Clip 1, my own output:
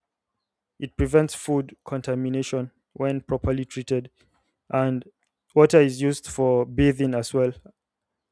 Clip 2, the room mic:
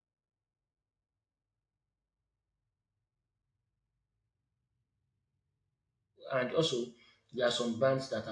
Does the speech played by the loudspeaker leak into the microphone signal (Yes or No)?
No